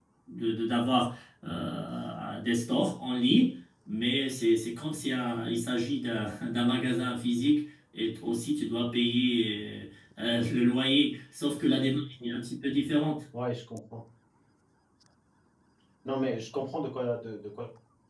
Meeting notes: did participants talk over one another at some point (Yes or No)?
No